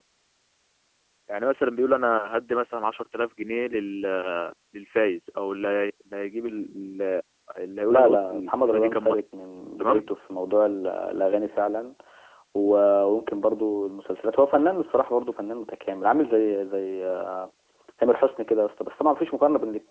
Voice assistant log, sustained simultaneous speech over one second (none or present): present